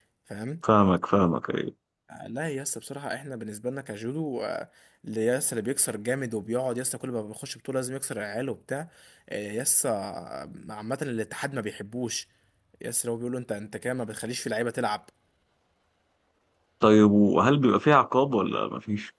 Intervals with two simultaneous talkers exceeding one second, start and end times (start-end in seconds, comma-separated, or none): none